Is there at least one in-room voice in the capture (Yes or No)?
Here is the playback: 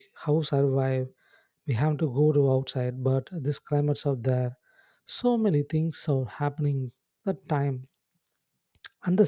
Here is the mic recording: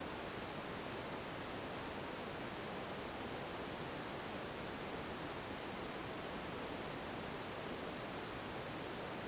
No